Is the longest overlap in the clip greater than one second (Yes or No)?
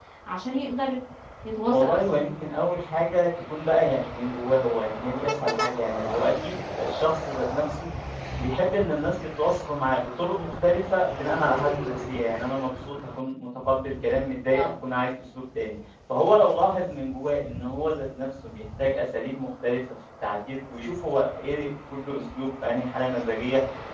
No